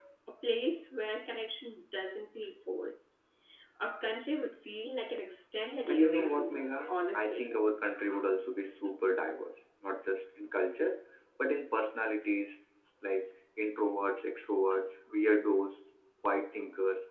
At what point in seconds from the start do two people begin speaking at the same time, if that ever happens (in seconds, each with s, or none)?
5.9 s